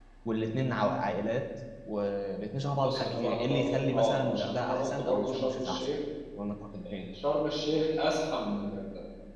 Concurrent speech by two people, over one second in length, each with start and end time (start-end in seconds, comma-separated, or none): 2.8-6.0